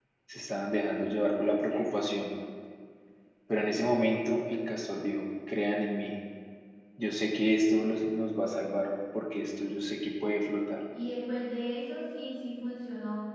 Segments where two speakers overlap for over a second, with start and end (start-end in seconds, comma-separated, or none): none